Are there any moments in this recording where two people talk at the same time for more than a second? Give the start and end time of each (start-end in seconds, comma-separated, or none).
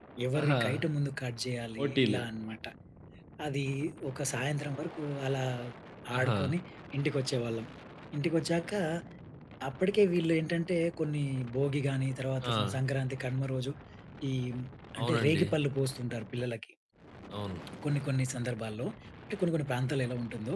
none